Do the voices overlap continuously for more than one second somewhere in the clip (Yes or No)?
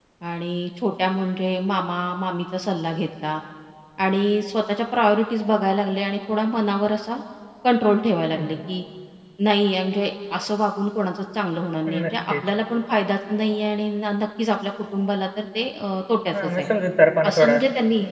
No